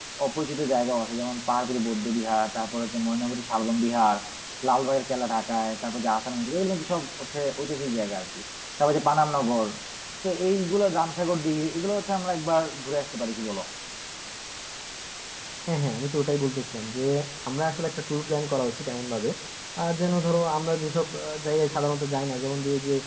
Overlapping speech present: No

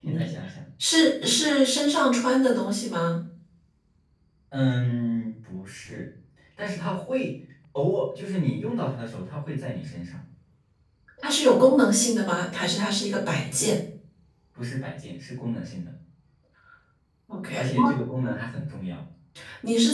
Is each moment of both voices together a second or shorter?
Yes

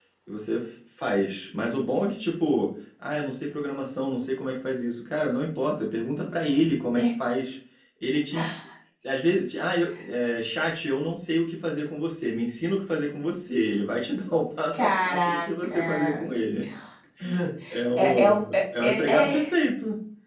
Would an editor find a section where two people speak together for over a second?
Yes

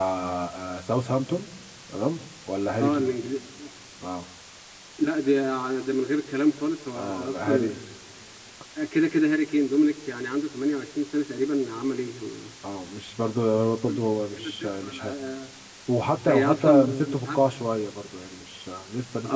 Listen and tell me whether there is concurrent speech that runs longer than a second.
Yes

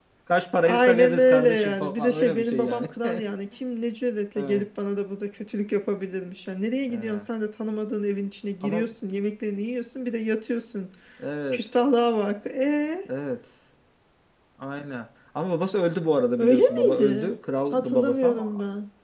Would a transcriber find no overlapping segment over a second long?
No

